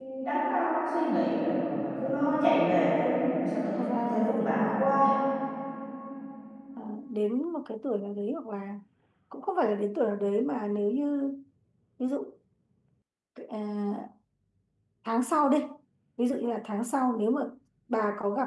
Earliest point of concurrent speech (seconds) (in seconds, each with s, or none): 3.8 s